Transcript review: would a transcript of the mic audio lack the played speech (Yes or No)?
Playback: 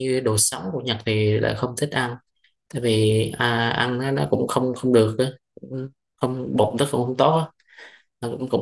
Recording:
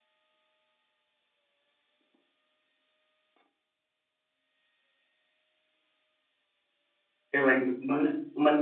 Yes